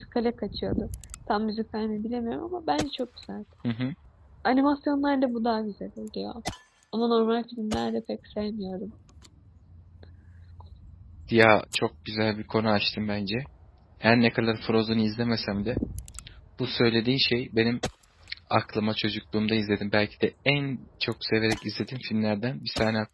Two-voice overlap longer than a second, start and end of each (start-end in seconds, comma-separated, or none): none